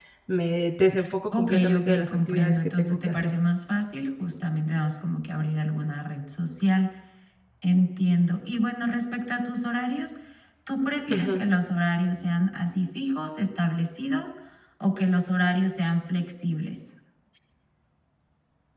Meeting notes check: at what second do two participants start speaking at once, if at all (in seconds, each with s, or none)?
1.3 s